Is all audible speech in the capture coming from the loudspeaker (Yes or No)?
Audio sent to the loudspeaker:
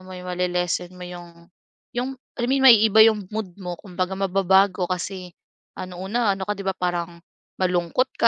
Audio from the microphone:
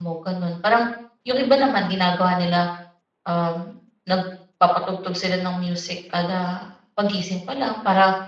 No